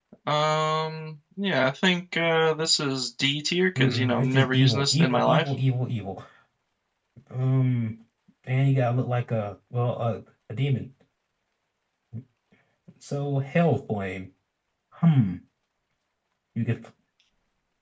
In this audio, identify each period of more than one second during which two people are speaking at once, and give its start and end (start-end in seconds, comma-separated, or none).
3.8-5.5